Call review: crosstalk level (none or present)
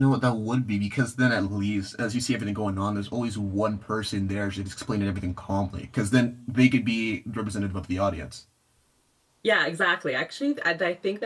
none